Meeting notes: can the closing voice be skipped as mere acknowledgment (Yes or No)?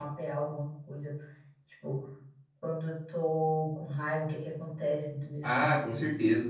No